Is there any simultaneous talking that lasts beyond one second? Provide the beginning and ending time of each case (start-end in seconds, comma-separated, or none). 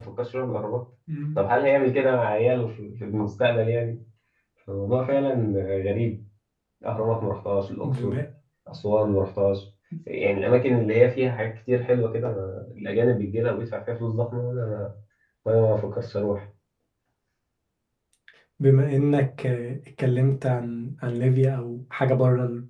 none